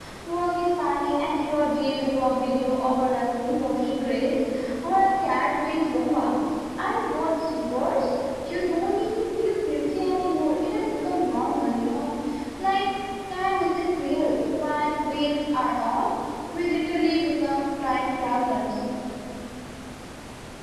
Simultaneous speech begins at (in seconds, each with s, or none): none